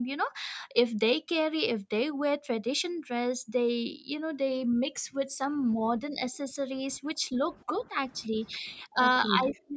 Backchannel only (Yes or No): Yes